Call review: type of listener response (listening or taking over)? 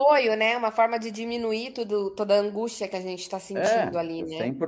taking over